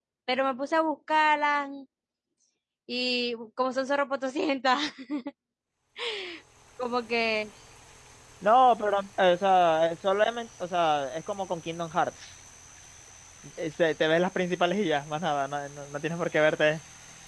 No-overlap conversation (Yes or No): Yes